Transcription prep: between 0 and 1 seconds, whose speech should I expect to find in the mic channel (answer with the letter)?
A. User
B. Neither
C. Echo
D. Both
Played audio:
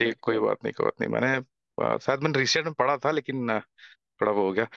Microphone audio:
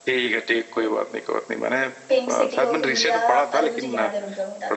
C